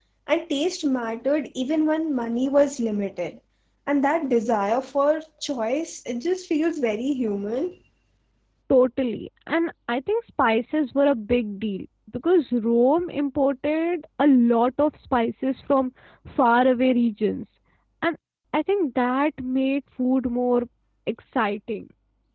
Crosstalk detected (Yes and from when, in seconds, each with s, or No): No